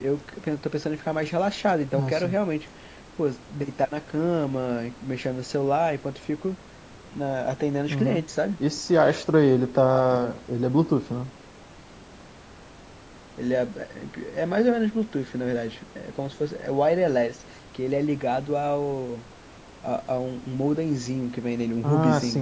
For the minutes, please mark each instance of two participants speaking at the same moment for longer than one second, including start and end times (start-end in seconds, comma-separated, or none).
none